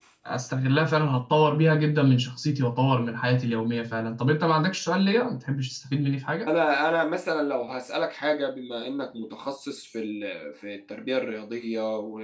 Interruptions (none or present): none